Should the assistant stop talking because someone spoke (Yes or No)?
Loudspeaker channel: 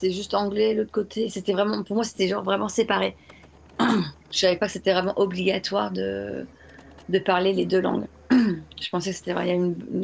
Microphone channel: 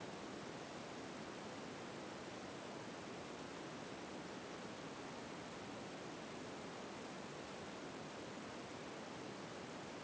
No